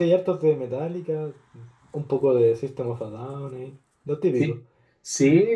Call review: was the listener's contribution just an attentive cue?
No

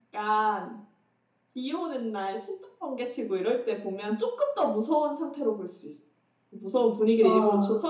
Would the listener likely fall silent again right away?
Yes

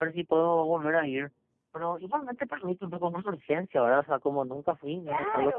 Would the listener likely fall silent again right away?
No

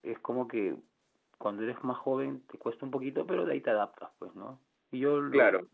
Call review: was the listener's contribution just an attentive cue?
Yes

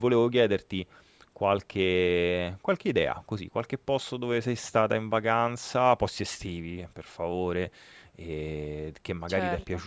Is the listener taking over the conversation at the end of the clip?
No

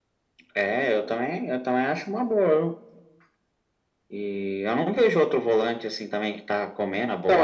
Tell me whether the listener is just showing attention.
No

